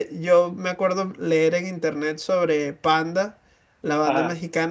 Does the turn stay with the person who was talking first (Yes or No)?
Yes